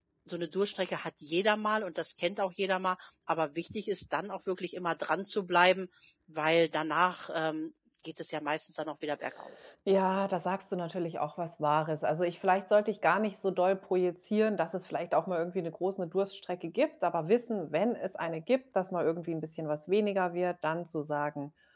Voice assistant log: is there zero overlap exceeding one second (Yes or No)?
Yes